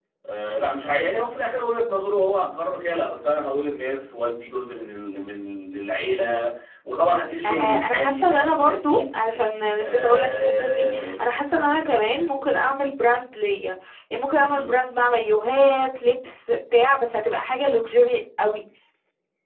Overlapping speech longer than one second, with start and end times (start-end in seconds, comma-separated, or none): 7.4-9.2, 9.8-11.2